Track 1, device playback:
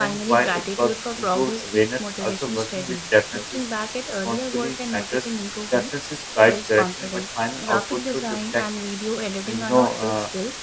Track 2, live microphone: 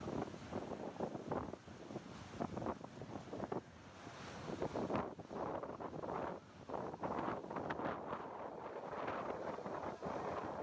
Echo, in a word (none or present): none